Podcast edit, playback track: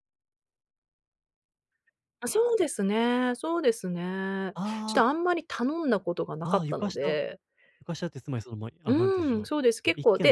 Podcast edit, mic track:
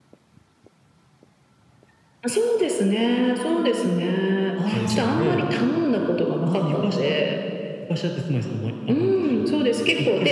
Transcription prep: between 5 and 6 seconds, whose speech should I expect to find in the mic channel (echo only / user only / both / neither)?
both